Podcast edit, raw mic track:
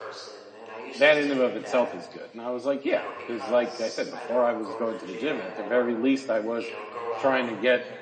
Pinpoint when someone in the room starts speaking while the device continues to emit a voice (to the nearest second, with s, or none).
1 s